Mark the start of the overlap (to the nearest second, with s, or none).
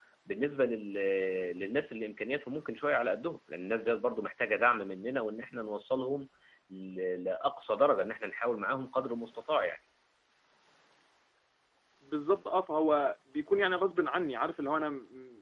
none